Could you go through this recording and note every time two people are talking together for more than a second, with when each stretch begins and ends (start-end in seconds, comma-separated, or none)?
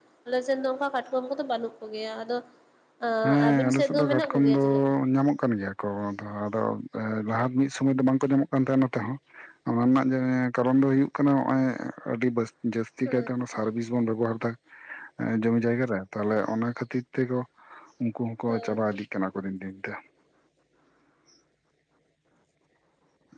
3.2-4.7